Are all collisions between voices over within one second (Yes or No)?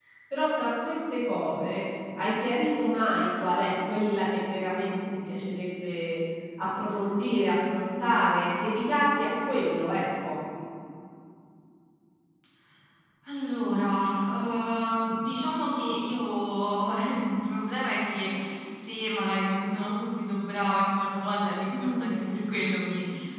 Yes